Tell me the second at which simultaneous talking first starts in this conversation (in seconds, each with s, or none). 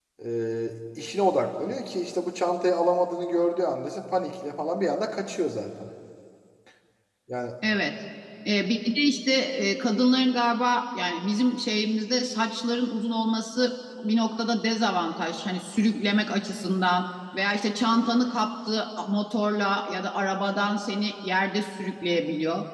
none